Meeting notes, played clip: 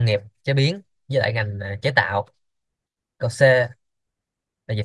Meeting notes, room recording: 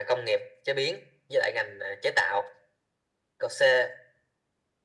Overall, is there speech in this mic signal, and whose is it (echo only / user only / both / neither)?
echo only